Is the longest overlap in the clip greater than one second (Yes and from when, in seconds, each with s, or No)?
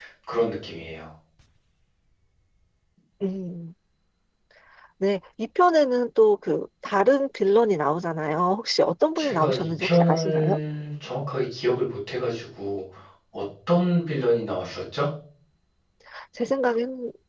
Yes, from 9.2 s